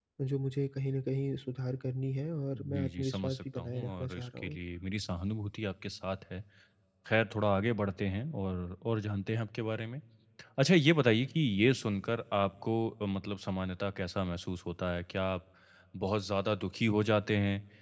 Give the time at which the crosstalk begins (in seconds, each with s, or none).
2.5 s